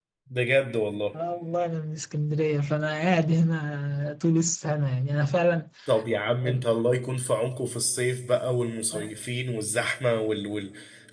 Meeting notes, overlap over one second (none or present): none